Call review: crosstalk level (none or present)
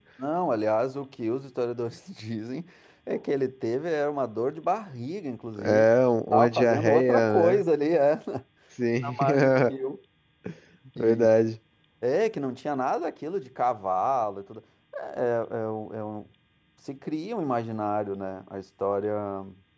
present